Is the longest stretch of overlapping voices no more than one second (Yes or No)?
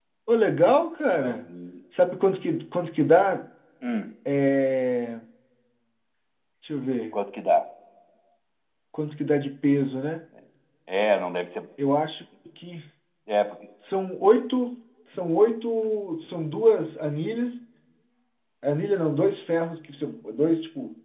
Yes